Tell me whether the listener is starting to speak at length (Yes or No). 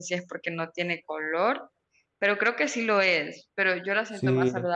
No